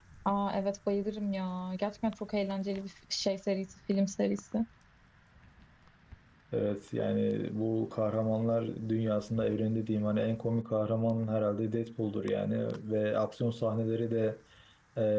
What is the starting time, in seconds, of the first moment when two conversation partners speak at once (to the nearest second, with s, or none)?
none